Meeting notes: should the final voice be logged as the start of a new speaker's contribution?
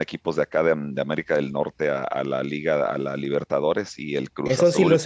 Yes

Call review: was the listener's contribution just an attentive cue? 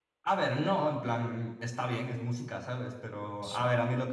Yes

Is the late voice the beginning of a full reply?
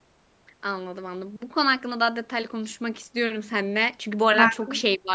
No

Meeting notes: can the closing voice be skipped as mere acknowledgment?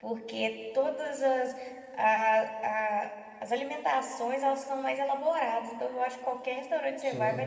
Yes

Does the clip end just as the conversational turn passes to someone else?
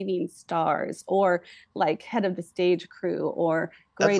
No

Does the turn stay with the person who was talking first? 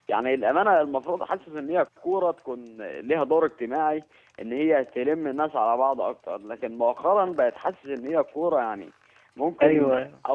Yes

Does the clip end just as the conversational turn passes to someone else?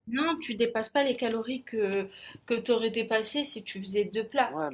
Yes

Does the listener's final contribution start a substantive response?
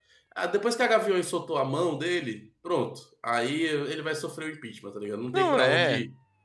Yes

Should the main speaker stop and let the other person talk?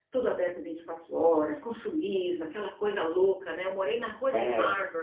No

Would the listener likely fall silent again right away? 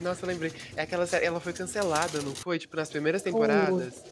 No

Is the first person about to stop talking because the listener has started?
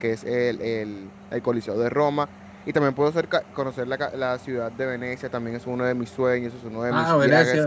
Yes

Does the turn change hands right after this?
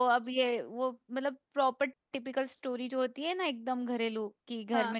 No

